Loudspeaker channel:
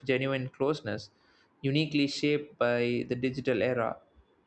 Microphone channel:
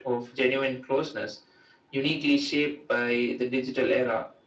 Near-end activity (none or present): none